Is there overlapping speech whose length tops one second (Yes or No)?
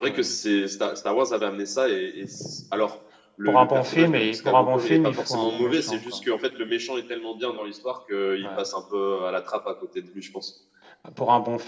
Yes